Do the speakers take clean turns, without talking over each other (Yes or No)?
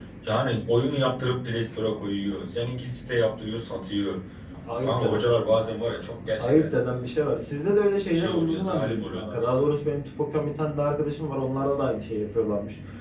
No